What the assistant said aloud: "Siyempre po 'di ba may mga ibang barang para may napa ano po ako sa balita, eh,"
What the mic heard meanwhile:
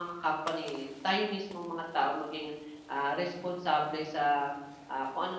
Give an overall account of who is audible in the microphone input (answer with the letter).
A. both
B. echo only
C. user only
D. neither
C